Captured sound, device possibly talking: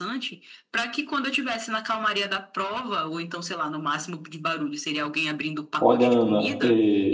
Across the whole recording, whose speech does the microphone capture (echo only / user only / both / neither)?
both